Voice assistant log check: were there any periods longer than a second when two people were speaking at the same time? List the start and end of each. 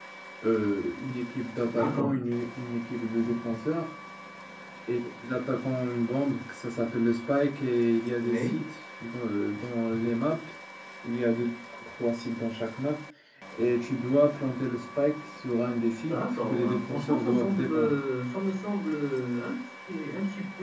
16.1-17.9

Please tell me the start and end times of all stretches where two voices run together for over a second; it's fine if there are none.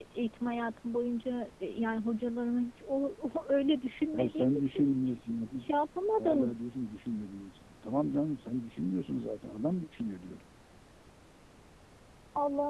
4.2-5.7

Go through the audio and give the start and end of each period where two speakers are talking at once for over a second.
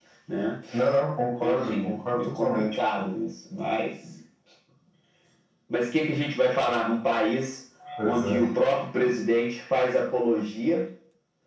1.4-2.6

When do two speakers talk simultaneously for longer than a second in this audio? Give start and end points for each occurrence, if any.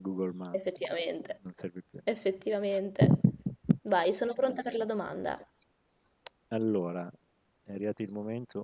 none

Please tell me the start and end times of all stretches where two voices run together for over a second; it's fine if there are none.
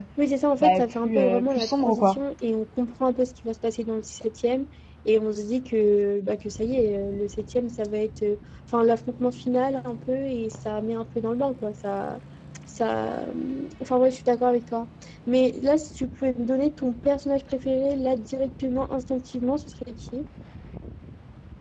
0.6-2.2

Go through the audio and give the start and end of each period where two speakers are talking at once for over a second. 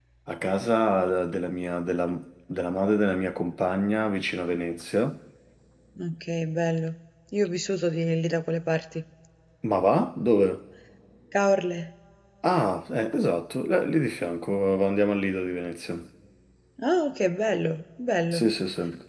none

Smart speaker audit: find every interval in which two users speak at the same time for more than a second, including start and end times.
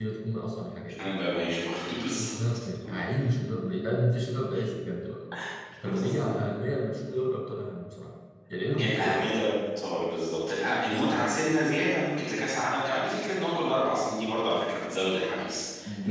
none

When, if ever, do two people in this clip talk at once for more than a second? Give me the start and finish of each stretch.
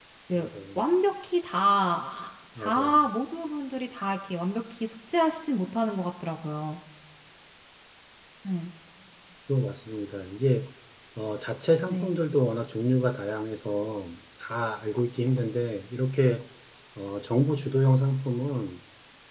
none

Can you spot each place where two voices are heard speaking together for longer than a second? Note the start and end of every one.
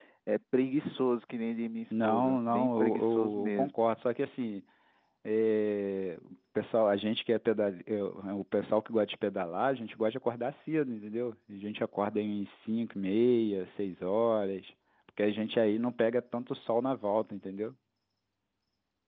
1.9-3.7

